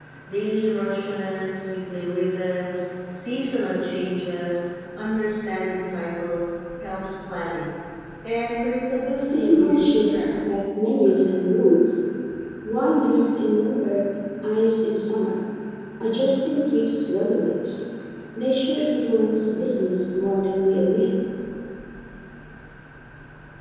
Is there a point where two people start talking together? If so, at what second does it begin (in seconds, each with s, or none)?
9.1 s